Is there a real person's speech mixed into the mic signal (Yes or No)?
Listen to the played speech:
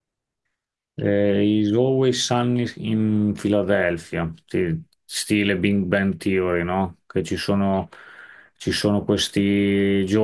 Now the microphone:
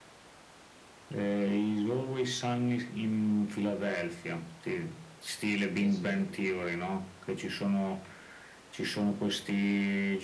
Yes